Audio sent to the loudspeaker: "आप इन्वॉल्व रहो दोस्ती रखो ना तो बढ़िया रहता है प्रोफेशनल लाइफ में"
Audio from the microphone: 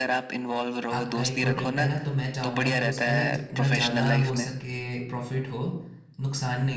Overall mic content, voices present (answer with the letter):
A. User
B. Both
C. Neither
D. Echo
B